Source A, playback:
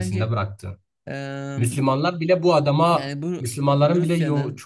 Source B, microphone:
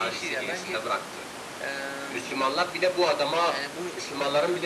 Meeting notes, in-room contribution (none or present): none